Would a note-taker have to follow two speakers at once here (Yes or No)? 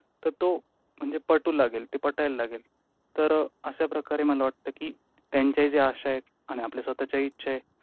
No